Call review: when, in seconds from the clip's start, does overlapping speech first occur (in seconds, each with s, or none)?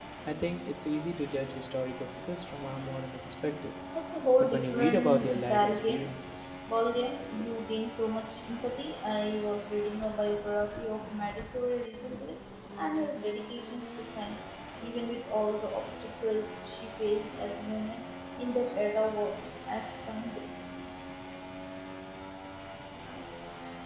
4.4 s